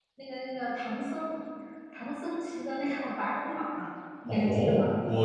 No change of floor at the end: No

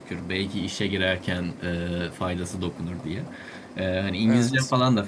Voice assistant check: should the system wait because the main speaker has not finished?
Yes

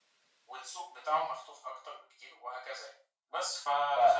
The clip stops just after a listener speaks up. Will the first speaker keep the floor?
Yes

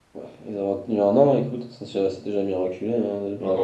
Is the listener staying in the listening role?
No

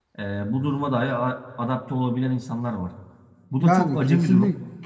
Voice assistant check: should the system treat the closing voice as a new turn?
Yes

